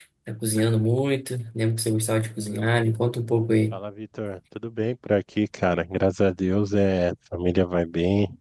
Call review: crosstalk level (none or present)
none